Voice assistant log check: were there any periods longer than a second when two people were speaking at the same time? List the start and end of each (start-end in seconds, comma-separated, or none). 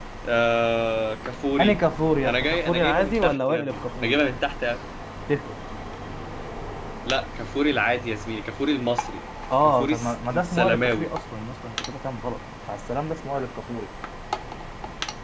2.2-4.2, 9.6-11.1